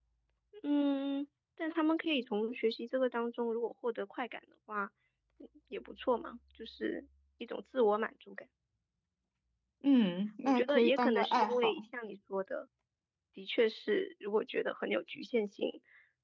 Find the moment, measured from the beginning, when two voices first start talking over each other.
10.4 s

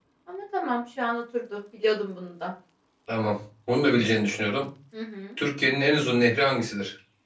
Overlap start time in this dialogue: none

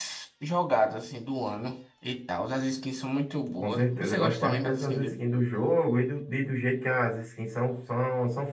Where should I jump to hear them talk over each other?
3.6 s

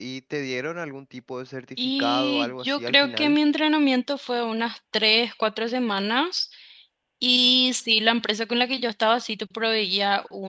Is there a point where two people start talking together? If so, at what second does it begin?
1.8 s

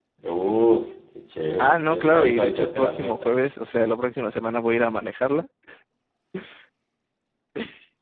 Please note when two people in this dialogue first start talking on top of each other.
1.6 s

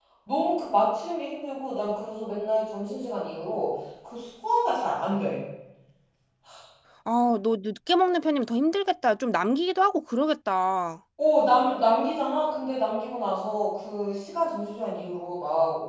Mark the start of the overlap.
none

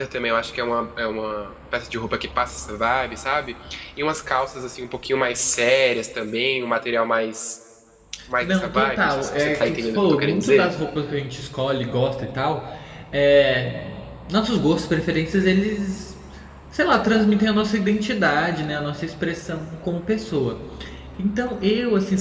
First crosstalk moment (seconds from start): 8.4 s

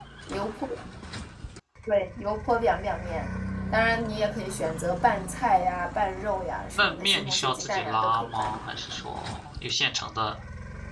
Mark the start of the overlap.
6.8 s

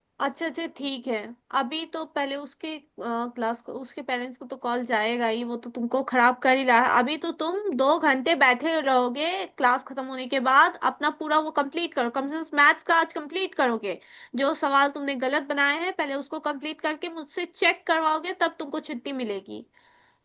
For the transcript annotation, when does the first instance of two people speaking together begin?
none

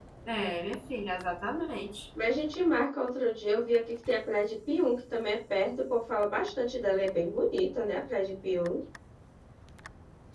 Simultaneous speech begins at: none

